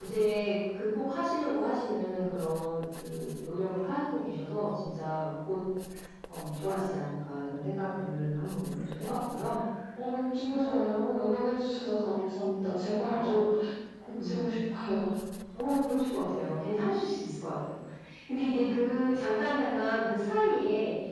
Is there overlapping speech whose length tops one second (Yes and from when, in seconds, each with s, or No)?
No